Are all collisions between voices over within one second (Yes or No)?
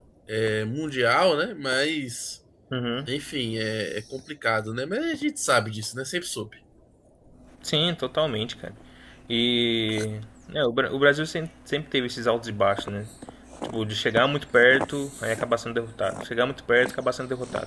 Yes